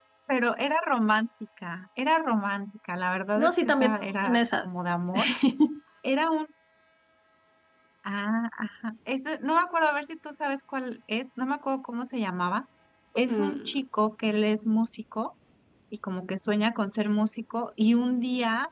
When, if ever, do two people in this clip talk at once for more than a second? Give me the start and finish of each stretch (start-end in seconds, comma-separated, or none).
3.4-4.7